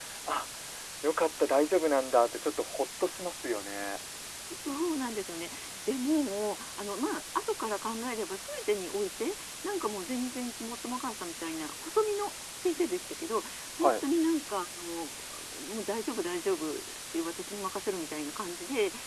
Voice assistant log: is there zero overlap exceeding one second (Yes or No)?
Yes